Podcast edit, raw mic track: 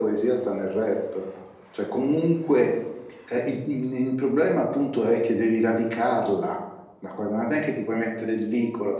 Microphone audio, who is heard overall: echo only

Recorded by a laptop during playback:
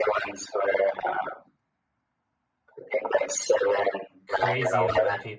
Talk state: both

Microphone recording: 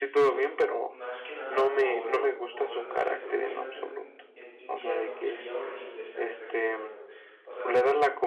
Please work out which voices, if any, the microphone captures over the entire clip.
both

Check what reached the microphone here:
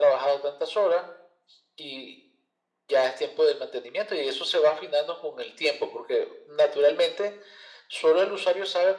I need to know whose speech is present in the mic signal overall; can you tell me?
echo only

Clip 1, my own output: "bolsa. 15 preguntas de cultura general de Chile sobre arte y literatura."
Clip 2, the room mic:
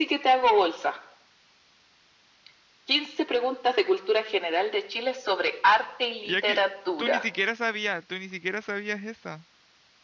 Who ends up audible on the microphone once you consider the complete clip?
both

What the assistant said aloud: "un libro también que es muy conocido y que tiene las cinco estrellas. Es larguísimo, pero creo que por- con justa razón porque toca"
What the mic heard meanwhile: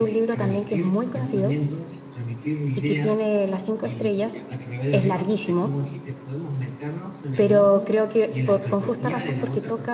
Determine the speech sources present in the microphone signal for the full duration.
both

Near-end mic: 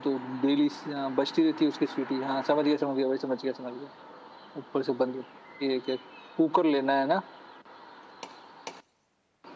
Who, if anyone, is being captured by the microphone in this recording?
echo only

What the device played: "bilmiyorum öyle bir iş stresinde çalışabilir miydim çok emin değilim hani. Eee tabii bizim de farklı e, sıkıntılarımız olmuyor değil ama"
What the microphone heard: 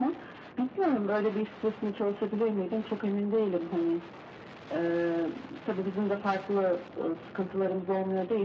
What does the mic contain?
echo only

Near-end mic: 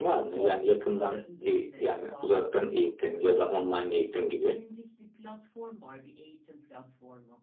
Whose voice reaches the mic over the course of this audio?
both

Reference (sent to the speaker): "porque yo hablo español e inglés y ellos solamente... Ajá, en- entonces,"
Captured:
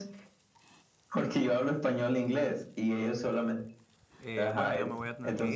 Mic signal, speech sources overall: both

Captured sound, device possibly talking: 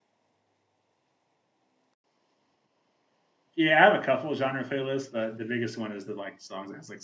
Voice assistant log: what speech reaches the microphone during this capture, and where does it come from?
user only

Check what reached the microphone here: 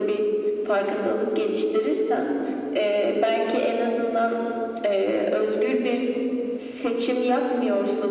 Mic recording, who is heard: echo only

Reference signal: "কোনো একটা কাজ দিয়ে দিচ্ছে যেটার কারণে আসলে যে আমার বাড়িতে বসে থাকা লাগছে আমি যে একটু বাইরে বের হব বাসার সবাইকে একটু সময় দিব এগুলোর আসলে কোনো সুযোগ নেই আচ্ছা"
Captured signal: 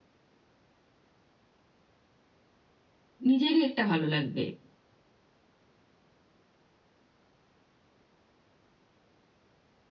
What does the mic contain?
user only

